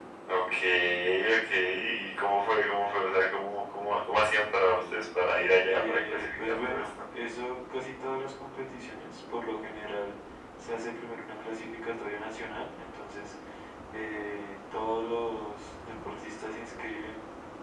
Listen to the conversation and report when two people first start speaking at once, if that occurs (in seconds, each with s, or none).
5.6 s